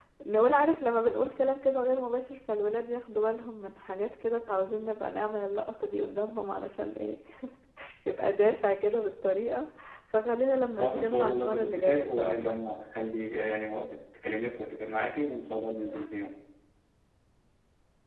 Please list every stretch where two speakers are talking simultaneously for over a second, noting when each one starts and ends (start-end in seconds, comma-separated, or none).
10.8-12.6